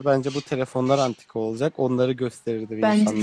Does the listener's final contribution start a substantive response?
Yes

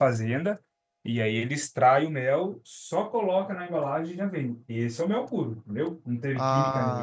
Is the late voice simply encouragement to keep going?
Yes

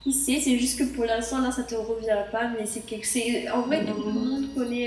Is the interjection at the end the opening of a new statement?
No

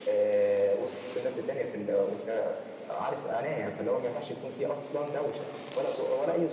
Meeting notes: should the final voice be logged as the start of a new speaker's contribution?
Yes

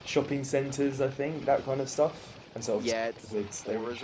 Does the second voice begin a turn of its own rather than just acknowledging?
Yes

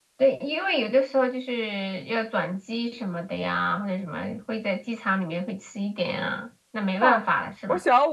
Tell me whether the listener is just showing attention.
No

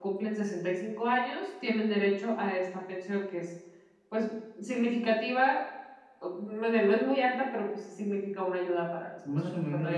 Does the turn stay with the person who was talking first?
No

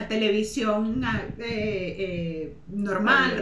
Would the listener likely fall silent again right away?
Yes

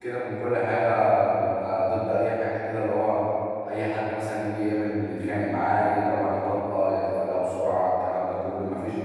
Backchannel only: Yes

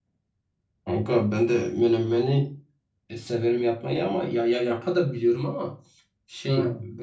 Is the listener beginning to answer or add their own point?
No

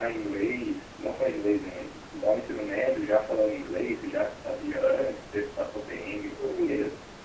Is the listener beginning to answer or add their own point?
Yes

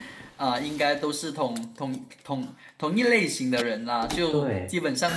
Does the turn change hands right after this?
No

